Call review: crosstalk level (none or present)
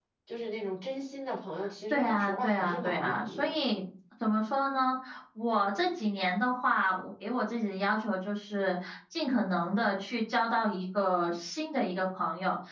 present